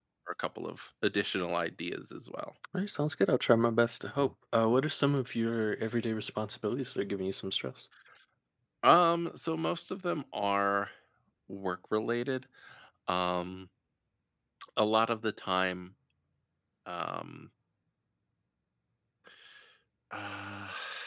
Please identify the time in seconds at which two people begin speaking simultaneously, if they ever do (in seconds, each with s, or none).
none